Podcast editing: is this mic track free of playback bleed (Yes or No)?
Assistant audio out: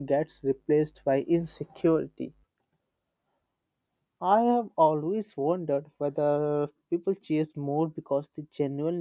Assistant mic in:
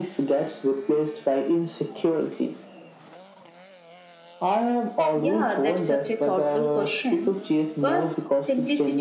No